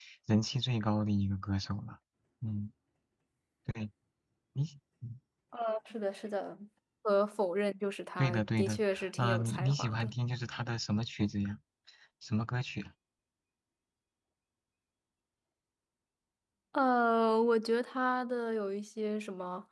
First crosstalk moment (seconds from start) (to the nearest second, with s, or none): 8 s